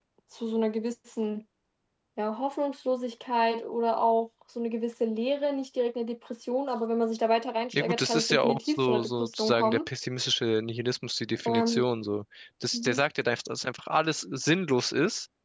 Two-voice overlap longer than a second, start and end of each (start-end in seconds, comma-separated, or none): 7.7-9.9